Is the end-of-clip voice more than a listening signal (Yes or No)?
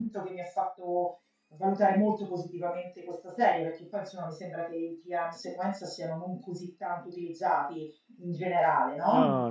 Yes